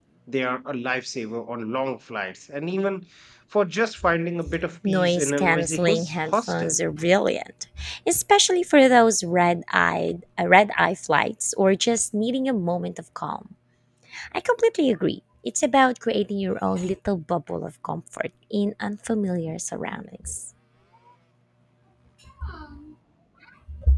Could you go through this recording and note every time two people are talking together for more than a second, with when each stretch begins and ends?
4.8-6.7

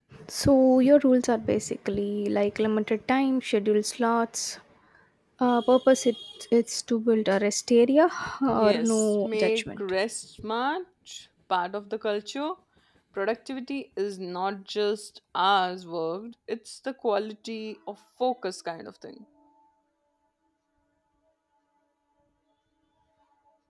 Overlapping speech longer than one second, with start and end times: 8.5-9.8

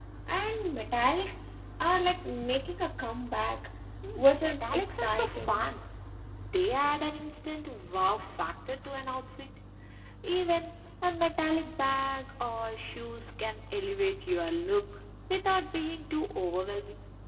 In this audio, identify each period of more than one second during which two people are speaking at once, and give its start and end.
4.2-5.6

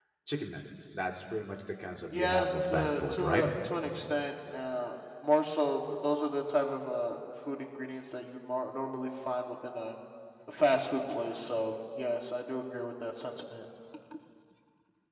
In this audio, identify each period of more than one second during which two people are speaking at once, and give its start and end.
2.1-3.4

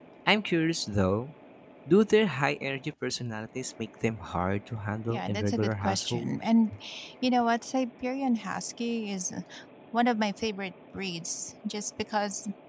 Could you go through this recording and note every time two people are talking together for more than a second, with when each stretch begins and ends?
5.1-6.3

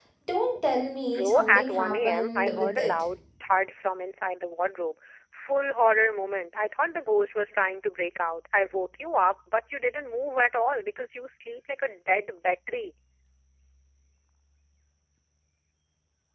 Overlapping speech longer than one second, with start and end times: 1.1-2.9

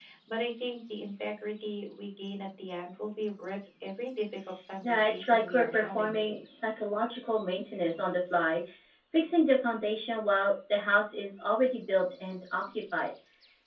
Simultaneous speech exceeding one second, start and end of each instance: 4.8-6.3

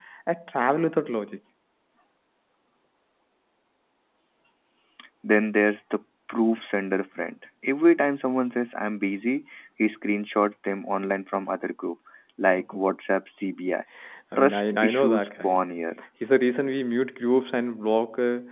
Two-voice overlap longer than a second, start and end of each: 14.4-15.6

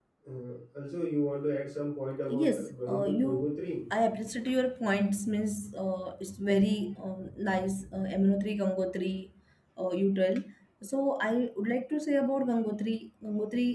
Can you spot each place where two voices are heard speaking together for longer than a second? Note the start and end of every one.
2.3-3.6

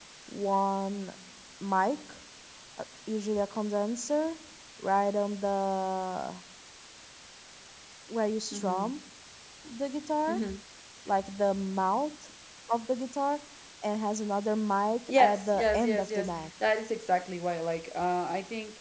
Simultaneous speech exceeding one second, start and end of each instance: 15.1-16.5

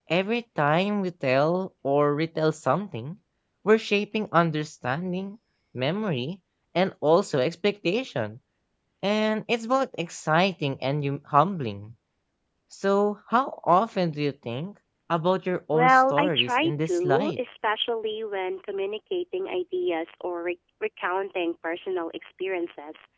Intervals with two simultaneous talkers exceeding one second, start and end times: 15.7-17.4

